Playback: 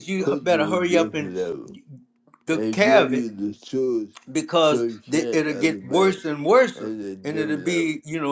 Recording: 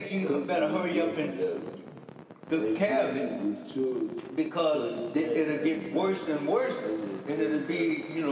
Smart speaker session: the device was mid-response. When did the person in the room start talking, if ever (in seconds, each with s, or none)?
none